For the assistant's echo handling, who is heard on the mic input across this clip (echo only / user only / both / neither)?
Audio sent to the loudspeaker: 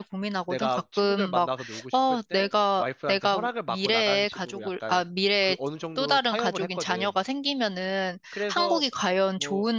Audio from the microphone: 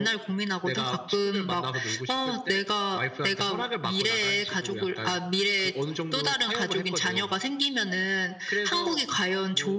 echo only